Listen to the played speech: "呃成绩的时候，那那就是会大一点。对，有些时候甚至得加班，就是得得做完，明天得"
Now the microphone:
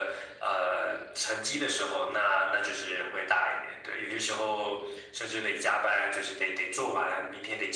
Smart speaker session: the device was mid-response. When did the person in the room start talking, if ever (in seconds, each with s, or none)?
none